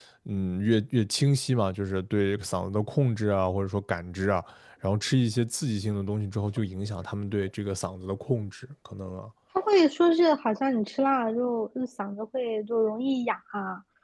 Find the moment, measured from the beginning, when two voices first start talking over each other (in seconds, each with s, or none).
none